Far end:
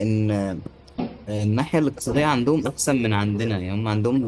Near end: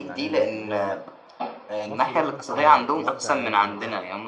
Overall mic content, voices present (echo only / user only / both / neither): both